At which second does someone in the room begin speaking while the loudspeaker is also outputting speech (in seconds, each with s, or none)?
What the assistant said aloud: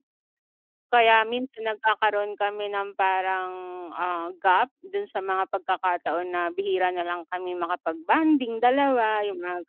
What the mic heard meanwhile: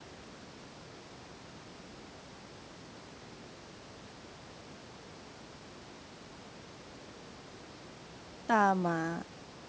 8.5 s